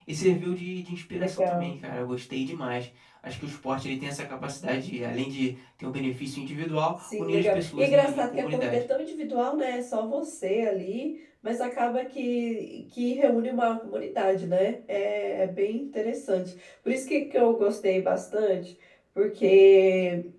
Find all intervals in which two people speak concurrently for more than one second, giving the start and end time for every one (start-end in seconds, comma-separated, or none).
7.0-8.8